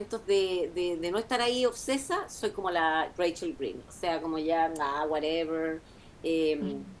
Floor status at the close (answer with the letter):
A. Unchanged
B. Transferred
A